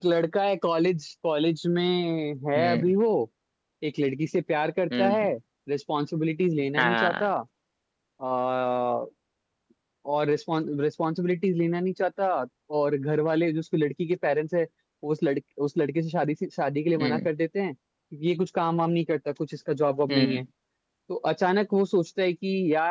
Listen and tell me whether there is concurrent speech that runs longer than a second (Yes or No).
No